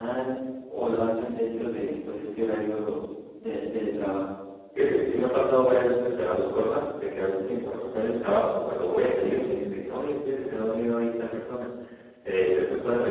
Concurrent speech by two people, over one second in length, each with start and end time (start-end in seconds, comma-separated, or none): none